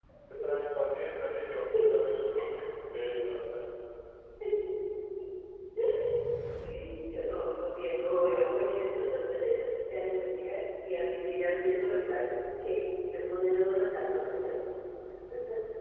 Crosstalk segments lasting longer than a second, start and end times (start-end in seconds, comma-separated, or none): none